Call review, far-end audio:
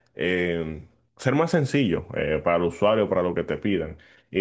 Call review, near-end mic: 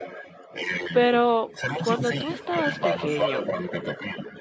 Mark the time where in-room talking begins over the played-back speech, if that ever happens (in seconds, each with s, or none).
0.9 s